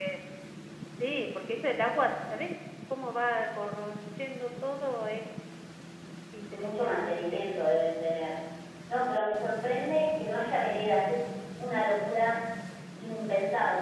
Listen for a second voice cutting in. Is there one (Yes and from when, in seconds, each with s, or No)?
Yes, from 6.5 s